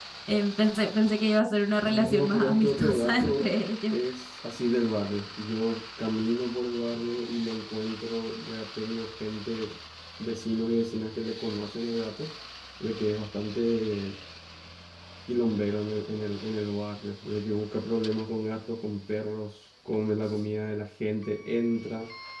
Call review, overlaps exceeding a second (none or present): present